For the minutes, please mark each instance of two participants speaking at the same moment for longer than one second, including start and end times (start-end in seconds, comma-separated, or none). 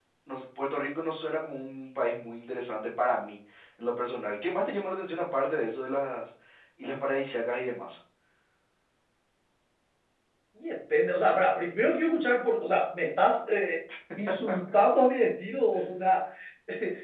none